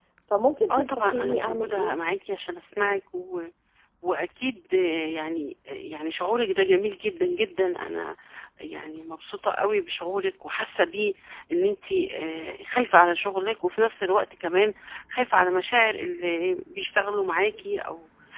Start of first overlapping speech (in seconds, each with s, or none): 0.7 s